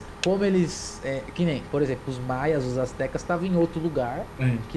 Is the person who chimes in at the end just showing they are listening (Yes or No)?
Yes